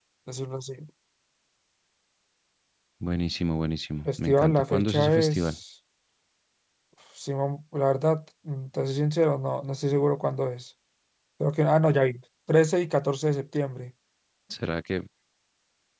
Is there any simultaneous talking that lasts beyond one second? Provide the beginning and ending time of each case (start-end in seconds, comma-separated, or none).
4.0-5.6